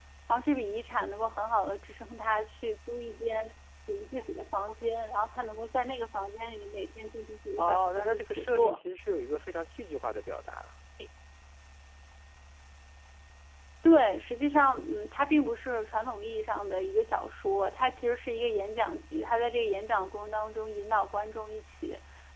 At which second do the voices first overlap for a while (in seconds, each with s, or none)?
7.6 s